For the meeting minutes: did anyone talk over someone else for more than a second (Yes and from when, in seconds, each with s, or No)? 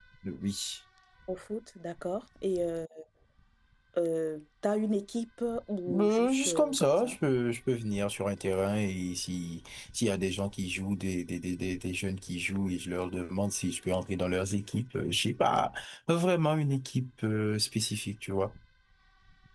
Yes, from 5.9 s